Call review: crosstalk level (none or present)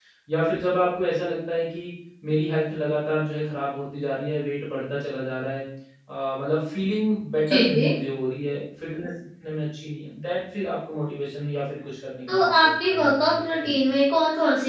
present